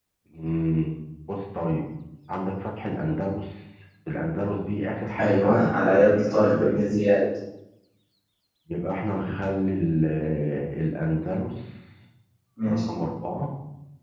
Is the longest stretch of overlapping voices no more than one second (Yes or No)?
No